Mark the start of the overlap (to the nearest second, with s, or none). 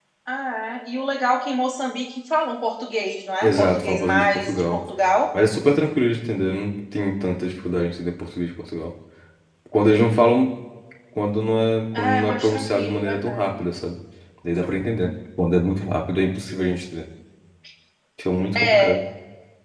3 s